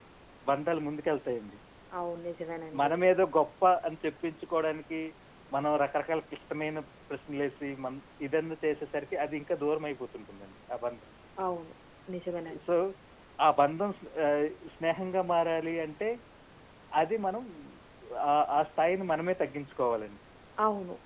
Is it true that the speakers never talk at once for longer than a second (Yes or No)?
Yes